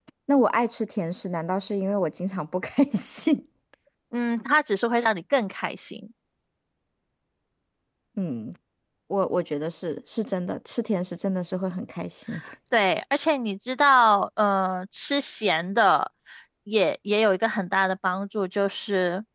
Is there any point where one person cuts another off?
No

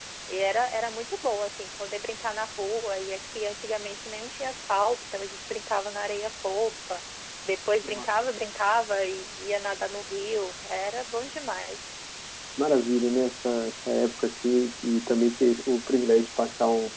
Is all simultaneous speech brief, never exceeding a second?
Yes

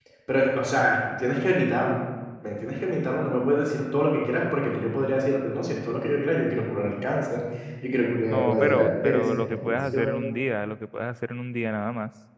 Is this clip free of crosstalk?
No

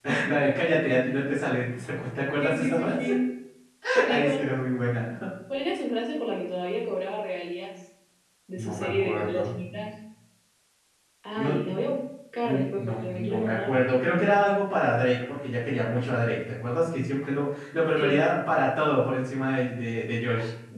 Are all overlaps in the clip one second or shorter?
No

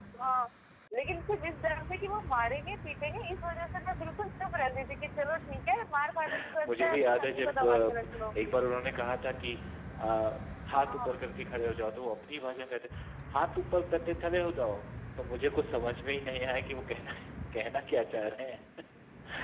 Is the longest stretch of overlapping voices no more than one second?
No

